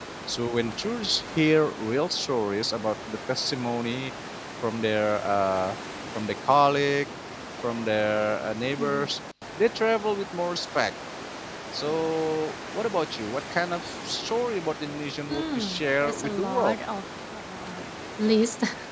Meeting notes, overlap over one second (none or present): present